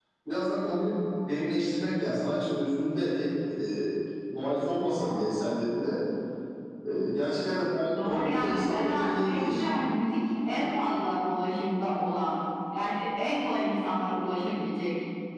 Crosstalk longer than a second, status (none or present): present